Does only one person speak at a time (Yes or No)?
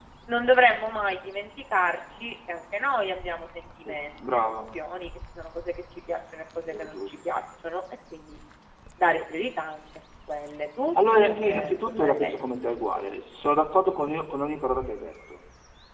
No